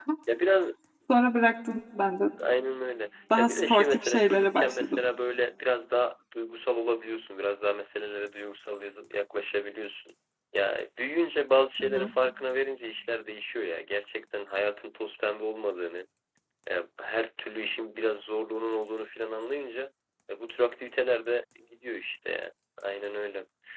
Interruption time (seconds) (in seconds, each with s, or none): 3.4 s